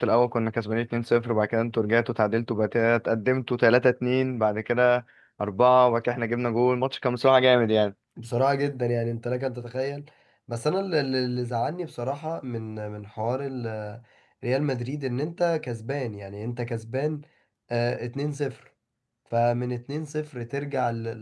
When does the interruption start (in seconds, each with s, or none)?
none